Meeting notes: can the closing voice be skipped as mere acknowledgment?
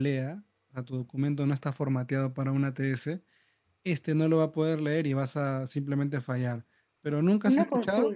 No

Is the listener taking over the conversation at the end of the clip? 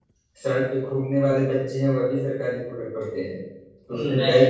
No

